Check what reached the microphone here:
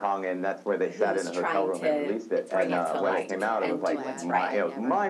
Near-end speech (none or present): present